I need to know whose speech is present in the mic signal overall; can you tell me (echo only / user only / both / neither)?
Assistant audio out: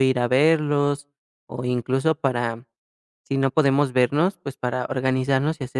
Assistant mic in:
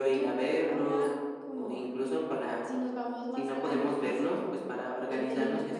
both